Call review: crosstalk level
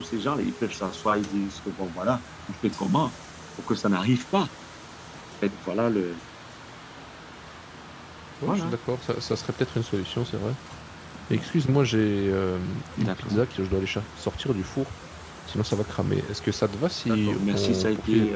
present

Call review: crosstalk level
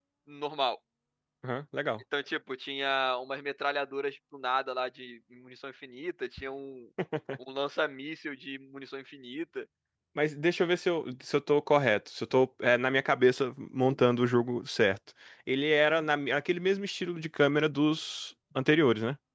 none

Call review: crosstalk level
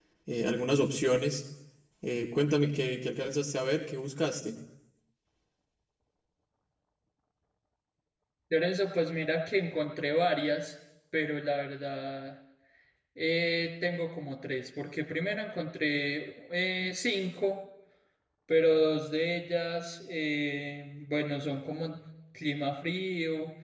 none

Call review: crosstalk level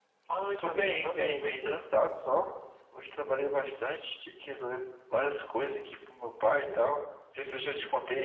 present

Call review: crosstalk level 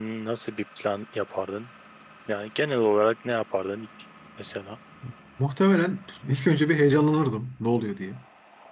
none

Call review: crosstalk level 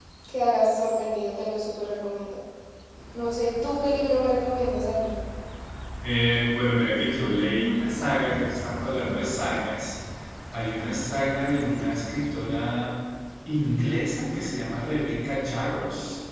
none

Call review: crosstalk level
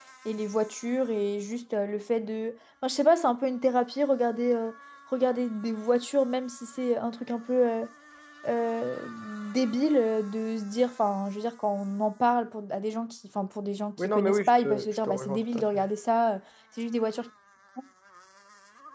present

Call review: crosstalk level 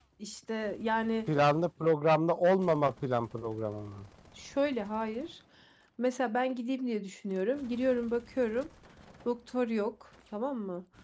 none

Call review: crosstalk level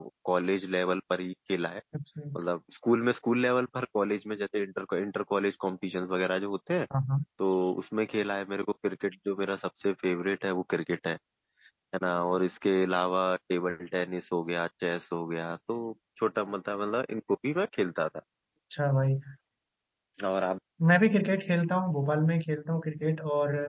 none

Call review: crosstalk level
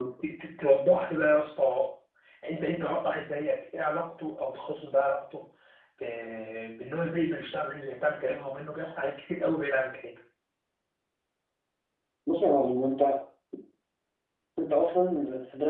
none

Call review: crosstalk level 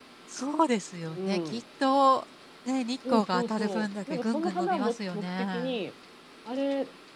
present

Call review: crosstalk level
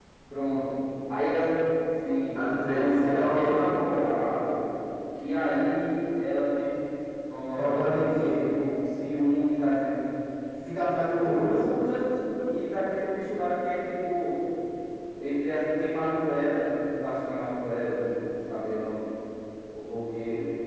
present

